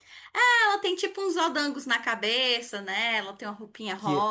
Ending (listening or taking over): taking over